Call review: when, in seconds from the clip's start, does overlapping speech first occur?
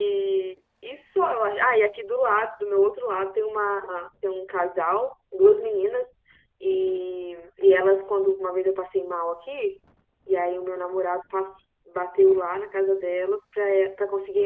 none

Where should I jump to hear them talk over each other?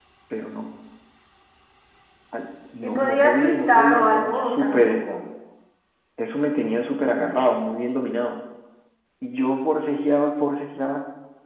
2.8 s

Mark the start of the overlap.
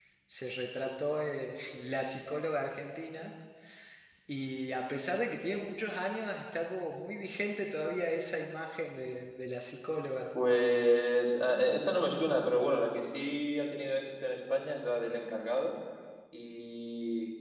none

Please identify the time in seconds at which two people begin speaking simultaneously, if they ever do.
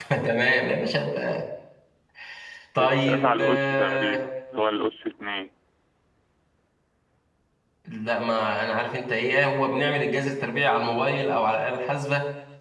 2.8 s

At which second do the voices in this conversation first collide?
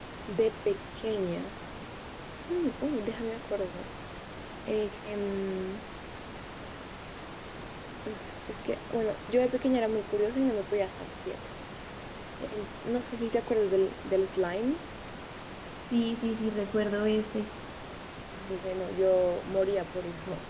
none

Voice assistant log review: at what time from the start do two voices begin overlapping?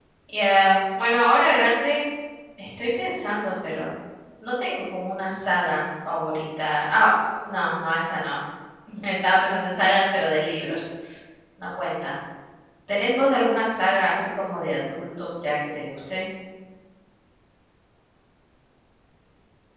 none

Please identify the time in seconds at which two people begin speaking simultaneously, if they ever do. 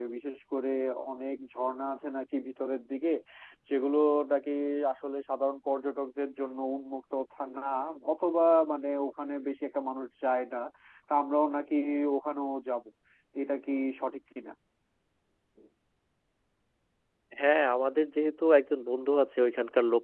none

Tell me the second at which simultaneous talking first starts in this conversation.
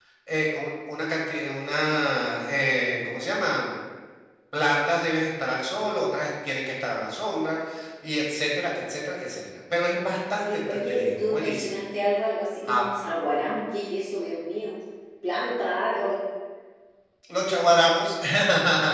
10.3 s

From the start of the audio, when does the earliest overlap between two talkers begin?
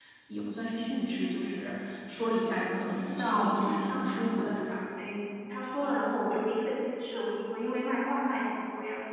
3.0 s

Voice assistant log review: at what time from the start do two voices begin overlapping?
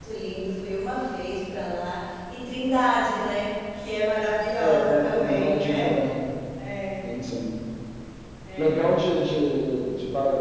4.6 s

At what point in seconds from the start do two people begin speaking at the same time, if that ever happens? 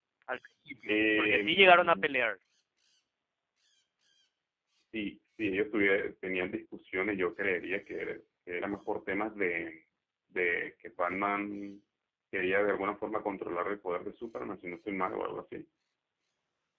0.9 s

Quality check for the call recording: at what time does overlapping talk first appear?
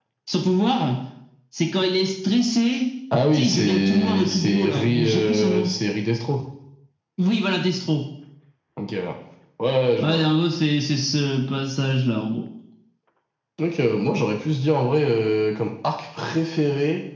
3.3 s

